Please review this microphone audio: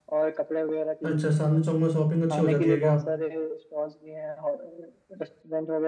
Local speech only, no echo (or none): अच्छा चांदनी चौक में शॉपिंग अच्छी हो जाती है क्या